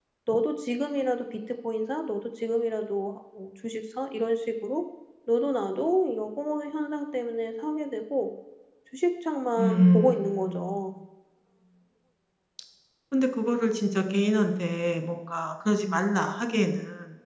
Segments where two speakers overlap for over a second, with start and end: 9.6-10.9

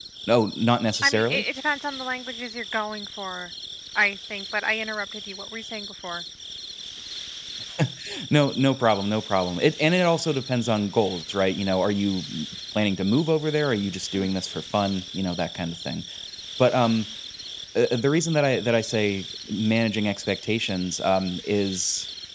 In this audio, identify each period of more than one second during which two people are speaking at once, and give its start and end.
none

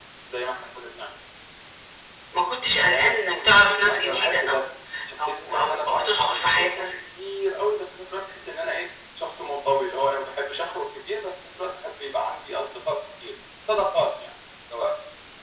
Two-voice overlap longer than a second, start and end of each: 2.8-4.6, 5.2-6.8

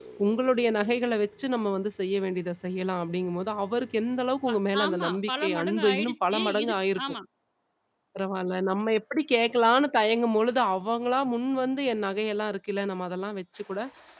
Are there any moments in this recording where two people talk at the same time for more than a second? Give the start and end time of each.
4.5-7.0

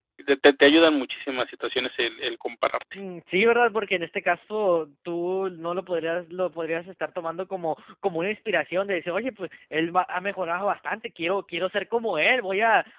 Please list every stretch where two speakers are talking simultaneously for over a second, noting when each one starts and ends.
none

